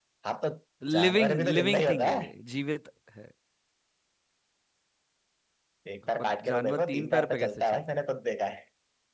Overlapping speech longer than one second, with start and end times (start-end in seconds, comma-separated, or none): 0.9-2.3, 6.2-8.0